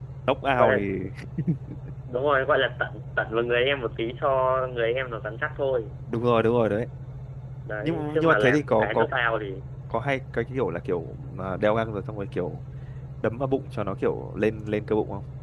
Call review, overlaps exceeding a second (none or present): present